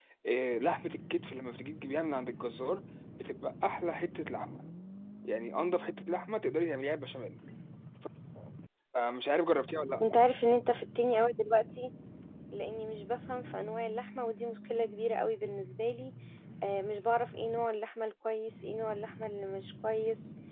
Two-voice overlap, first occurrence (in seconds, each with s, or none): none